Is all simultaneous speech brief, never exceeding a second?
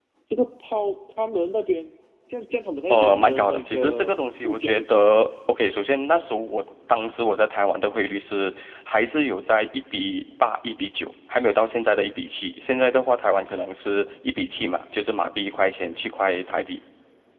No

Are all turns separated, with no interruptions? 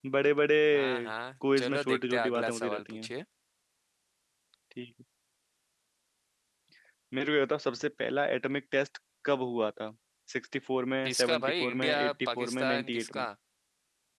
No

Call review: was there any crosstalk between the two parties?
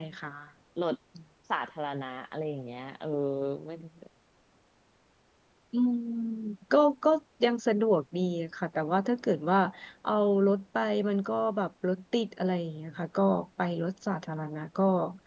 No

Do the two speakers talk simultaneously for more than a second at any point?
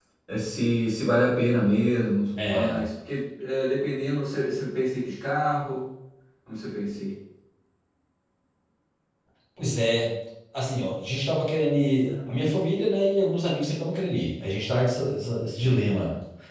No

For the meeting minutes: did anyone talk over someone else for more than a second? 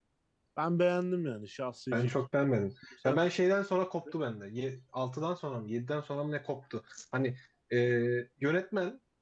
No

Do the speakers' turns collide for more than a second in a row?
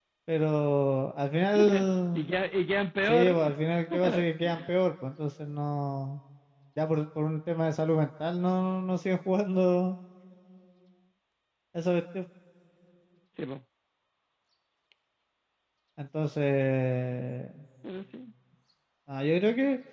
No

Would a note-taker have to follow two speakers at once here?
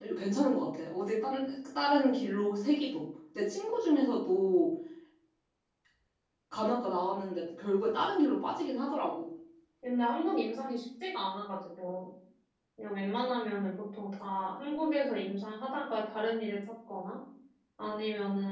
No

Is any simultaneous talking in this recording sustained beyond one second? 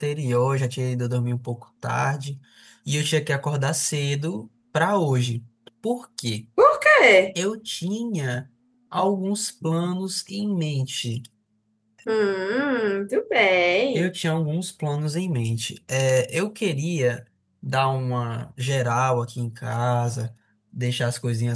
No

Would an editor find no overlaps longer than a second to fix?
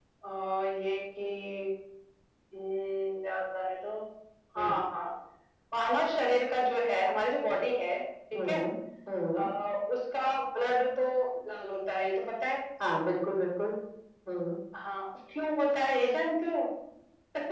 Yes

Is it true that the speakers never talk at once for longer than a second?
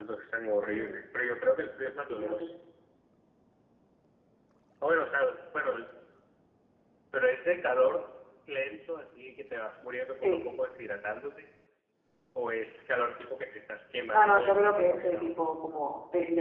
No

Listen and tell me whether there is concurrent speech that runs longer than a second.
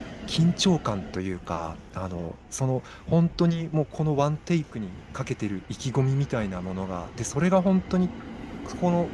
No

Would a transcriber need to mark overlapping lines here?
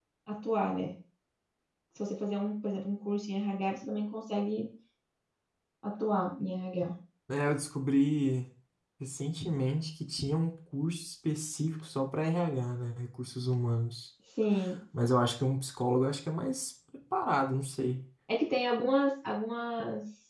No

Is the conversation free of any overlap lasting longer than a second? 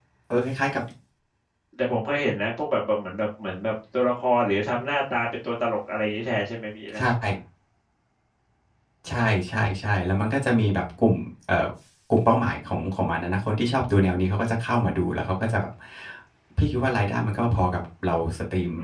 Yes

